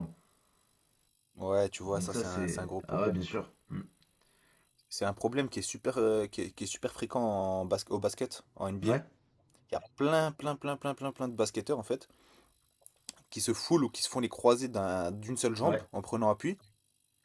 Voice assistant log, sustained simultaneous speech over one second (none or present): present